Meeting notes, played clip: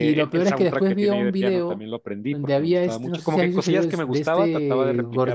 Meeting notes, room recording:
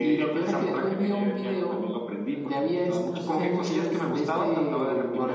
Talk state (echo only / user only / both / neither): echo only